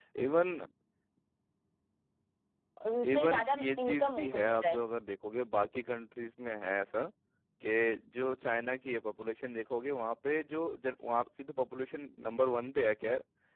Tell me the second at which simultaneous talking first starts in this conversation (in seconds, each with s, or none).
3.1 s